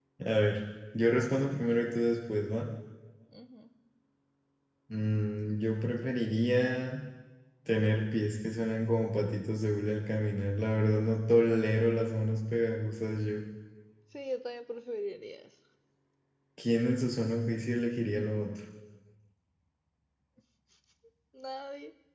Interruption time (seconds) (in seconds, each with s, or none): none